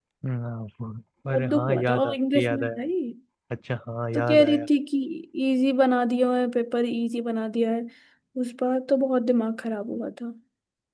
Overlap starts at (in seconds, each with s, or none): 1.3 s